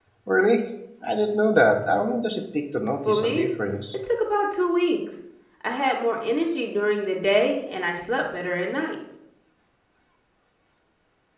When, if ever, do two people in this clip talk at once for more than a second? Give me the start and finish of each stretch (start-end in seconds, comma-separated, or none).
none